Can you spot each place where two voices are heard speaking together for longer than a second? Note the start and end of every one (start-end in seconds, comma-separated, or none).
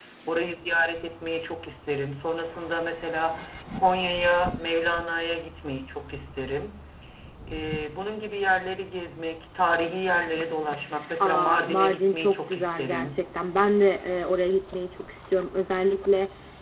11.2-13.2